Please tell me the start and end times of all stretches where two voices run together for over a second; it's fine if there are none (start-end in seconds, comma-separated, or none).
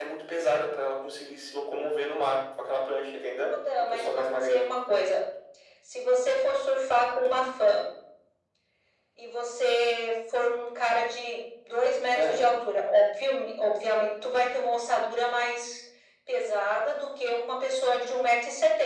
3.5-4.8